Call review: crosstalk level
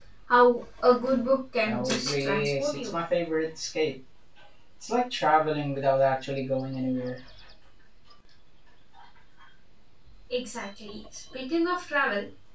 present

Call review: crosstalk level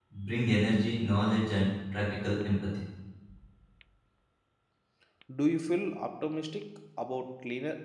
none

